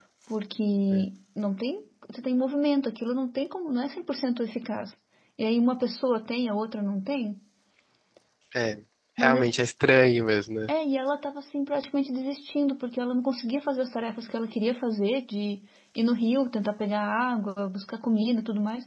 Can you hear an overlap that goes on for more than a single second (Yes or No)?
No